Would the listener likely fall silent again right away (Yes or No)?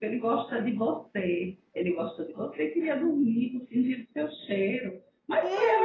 Yes